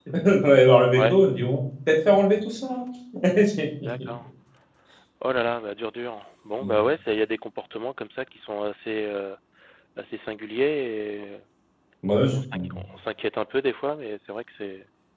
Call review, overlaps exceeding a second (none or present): none